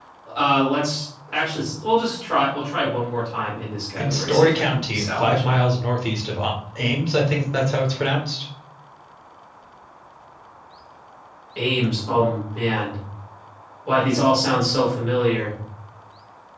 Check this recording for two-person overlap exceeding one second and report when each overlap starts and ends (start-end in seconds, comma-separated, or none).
4.0-5.5